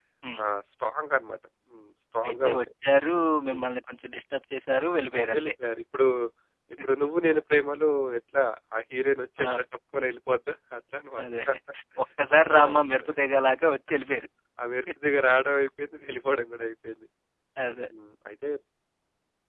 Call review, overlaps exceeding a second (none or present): none